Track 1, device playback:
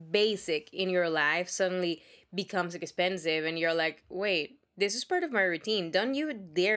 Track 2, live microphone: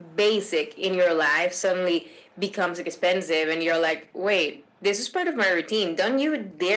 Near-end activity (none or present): none